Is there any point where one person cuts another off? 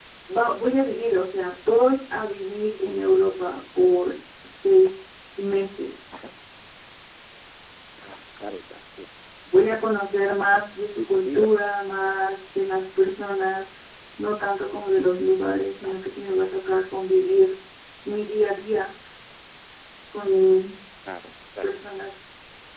Yes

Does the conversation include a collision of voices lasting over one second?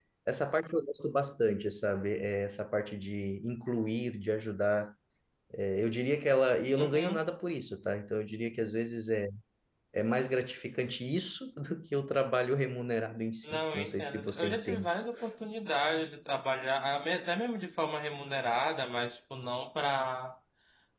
Yes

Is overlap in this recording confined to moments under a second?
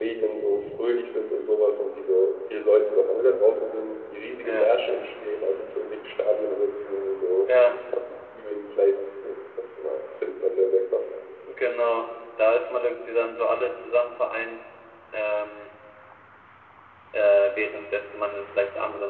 Yes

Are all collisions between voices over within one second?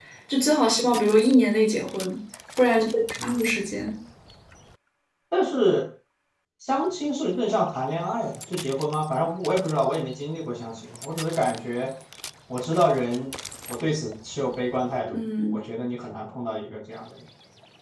Yes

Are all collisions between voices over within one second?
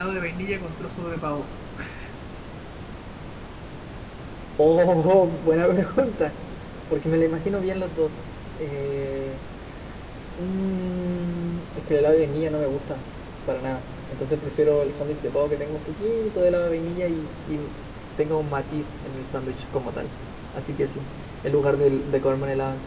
Yes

